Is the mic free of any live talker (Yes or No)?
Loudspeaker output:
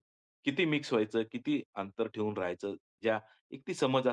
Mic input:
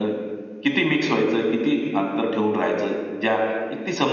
Yes